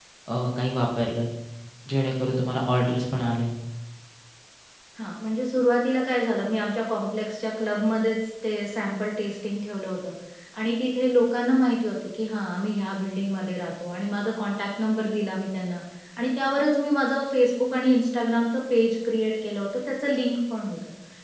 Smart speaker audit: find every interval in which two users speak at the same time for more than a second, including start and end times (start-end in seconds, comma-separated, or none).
none